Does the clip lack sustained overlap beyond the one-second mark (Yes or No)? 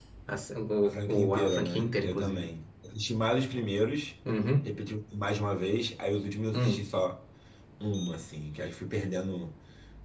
No